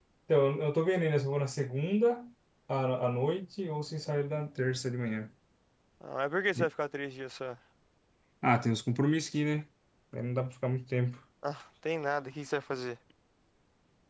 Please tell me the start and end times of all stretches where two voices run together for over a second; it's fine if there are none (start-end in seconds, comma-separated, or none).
none